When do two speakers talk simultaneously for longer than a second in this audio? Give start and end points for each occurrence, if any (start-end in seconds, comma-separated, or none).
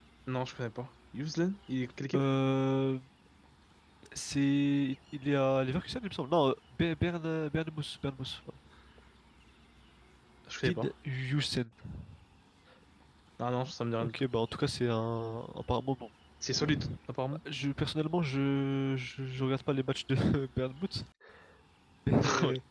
none